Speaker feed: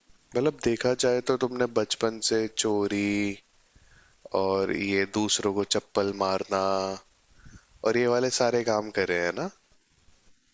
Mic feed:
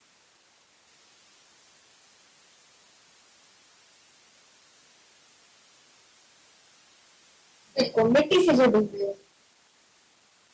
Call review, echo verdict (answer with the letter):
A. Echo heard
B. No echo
B